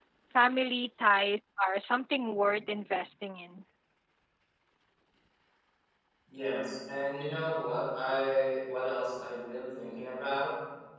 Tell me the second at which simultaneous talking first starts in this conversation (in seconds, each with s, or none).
none